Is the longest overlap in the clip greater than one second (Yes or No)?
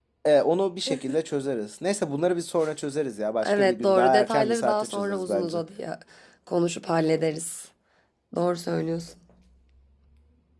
Yes